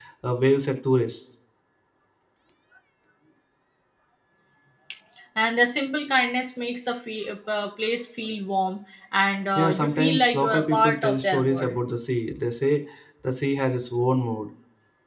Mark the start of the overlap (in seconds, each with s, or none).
9.6 s